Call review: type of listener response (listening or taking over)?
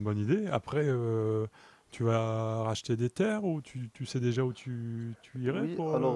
taking over